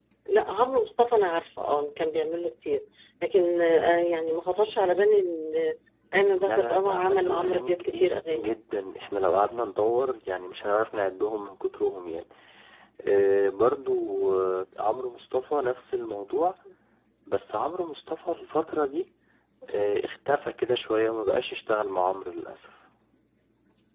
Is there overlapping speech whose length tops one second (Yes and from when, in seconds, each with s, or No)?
Yes, from 6.4 s